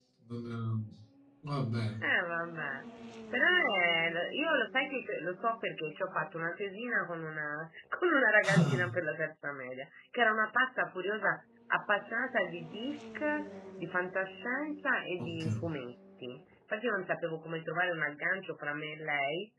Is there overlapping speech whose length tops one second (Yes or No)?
No